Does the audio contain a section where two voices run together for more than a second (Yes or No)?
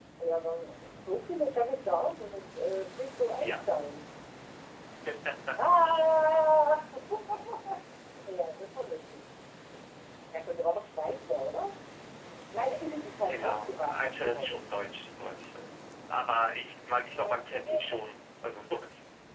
Yes